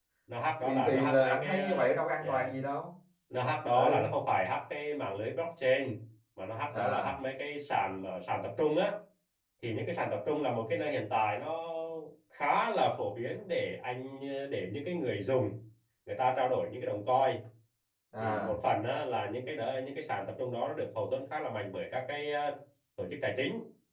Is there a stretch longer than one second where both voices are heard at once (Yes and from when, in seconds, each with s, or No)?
Yes, from 0.6 s